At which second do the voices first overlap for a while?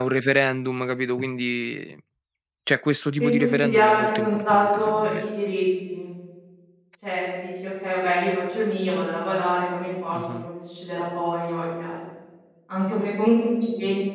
3.2 s

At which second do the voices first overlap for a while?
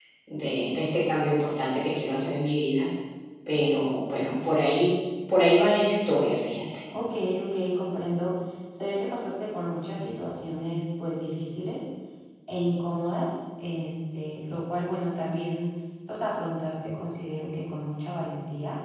none

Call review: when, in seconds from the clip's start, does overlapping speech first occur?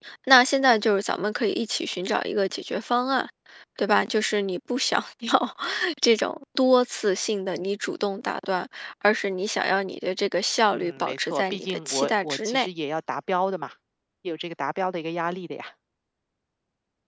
10.7 s

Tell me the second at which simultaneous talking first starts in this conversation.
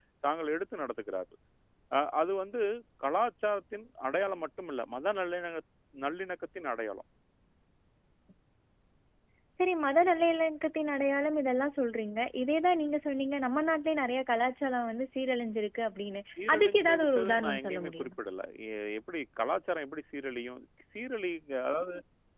16.4 s

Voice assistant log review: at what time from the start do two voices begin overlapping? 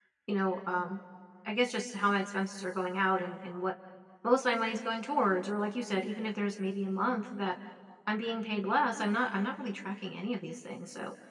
none

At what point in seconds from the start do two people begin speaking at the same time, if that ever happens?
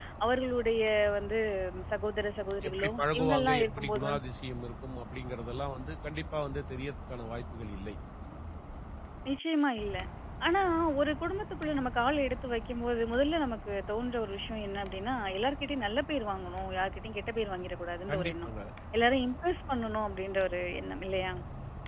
2.7 s

